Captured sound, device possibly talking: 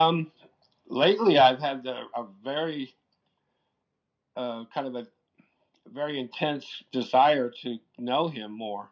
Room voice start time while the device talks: none

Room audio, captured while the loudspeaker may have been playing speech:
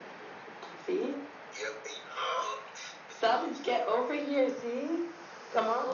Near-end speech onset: none

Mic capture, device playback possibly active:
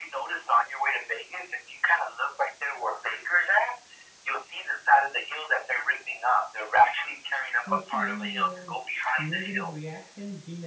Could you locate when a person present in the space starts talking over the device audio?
7.6 s

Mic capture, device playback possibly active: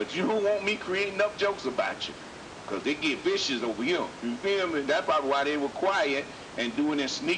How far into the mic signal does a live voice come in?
none

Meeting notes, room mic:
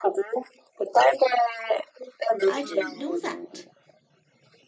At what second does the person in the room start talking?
2.4 s

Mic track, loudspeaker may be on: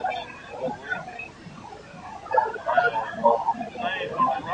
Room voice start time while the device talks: 2.5 s

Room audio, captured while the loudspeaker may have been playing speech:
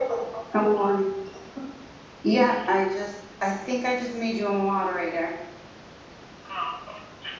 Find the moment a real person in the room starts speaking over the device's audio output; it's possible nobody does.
none

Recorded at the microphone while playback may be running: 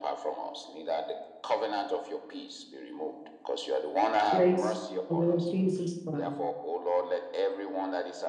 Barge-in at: 4.3 s

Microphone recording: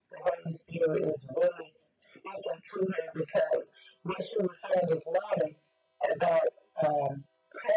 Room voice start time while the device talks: none

